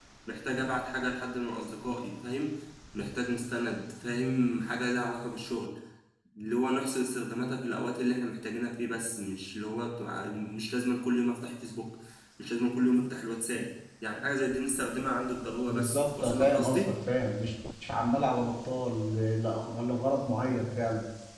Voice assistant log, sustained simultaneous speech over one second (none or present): present